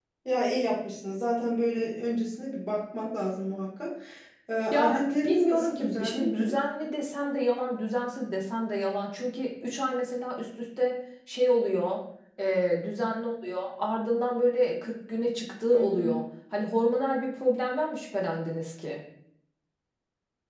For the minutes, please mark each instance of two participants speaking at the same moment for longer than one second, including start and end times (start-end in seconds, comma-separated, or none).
4.7-6.5